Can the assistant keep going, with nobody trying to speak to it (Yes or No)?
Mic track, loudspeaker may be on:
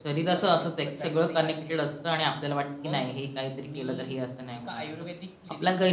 No